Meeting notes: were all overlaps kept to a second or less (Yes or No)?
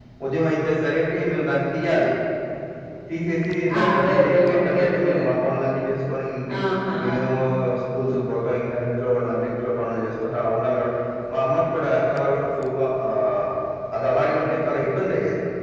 No